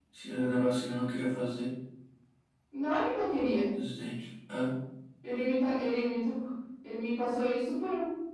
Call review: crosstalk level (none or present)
none